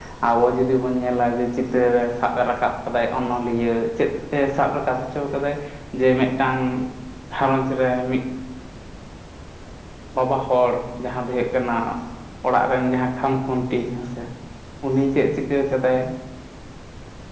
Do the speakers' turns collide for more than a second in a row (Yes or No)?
No